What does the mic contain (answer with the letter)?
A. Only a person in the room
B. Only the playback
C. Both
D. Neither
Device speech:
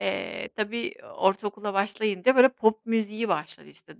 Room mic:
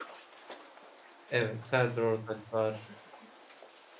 A